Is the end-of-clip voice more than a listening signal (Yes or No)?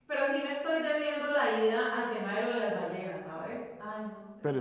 Yes